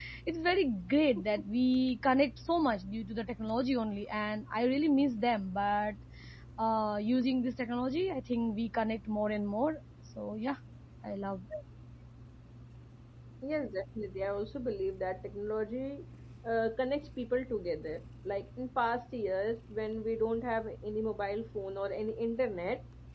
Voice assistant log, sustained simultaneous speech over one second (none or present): none